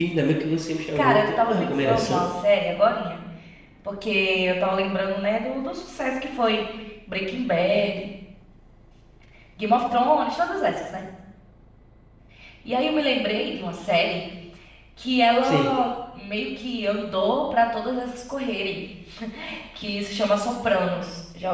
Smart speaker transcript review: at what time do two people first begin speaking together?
1.0 s

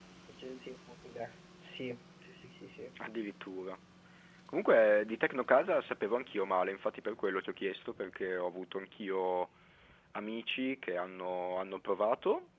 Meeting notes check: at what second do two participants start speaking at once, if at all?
none

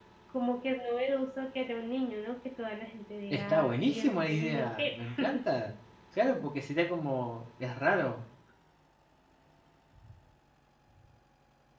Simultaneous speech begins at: 3.3 s

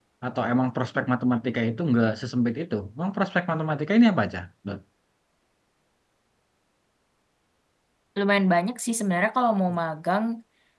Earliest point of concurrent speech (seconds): none

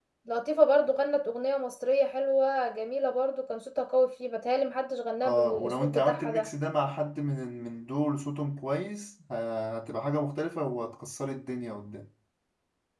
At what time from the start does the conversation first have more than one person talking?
5.2 s

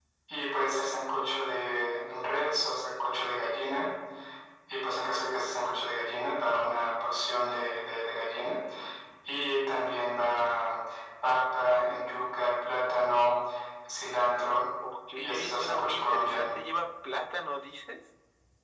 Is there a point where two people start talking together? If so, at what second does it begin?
15.2 s

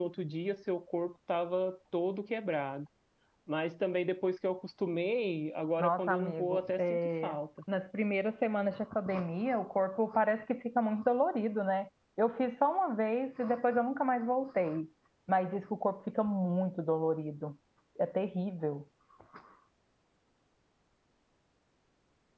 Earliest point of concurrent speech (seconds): 5.8 s

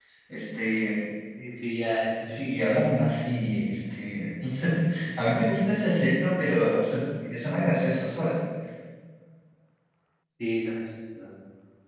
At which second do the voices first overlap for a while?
none

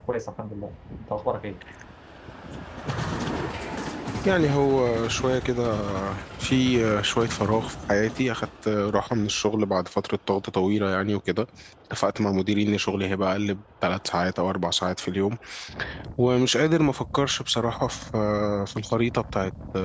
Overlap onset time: none

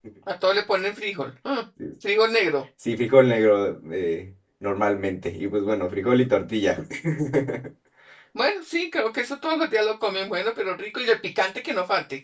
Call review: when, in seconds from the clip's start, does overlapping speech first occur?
none

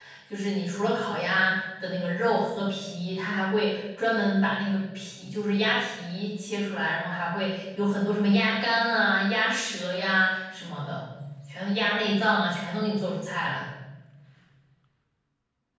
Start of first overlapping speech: none

